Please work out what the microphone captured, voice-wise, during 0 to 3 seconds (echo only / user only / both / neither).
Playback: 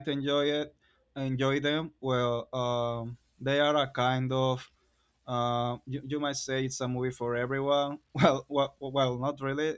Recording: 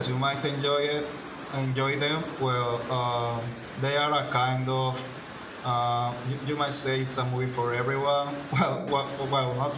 echo only